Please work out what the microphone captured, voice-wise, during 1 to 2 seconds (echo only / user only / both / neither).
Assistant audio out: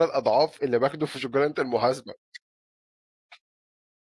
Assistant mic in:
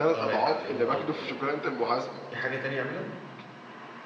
both